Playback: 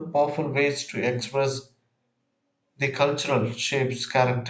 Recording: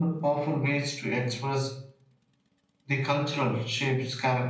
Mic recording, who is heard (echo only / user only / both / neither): echo only